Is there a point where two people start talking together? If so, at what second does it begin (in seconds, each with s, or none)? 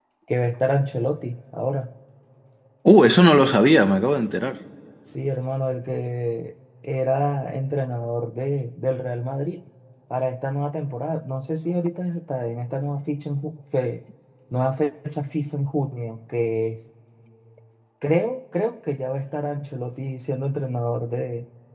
none